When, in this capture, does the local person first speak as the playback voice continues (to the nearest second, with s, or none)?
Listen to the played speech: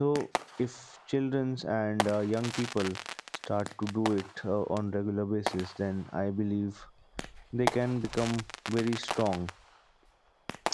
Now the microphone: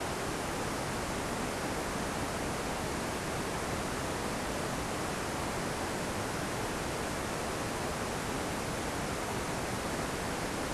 none